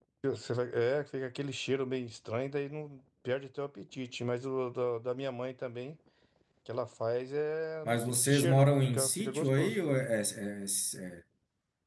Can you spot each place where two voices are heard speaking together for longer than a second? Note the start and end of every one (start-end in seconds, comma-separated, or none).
7.8-9.8